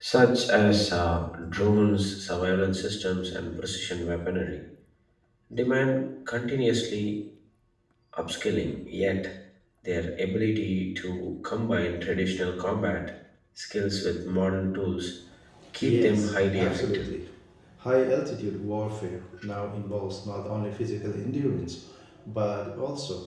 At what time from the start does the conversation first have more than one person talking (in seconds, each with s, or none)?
15.8 s